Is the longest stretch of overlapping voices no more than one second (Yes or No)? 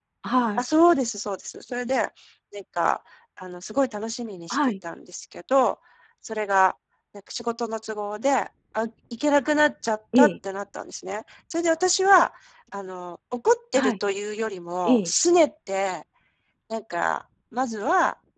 Yes